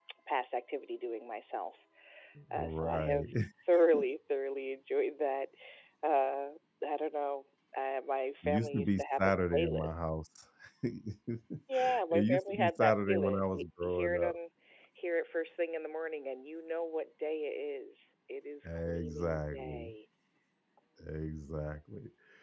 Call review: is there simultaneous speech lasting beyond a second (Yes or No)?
Yes